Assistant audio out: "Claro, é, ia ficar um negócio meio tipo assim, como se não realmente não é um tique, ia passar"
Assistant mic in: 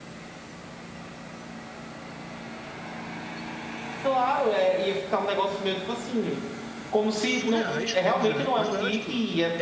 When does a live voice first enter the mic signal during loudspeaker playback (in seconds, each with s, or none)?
7.2 s